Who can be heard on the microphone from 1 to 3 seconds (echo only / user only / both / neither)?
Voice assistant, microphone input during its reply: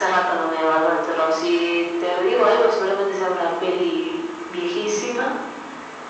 echo only